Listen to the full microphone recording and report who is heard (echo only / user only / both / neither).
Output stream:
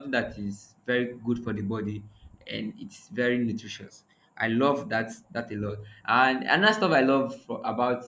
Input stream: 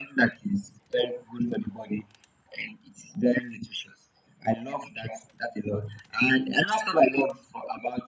echo only